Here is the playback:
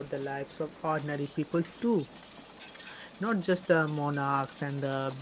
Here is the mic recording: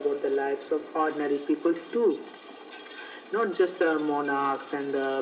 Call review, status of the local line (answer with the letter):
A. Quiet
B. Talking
A